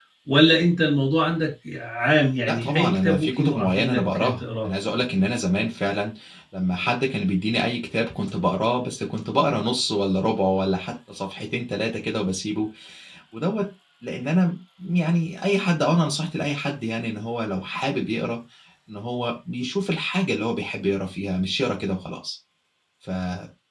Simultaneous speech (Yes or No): Yes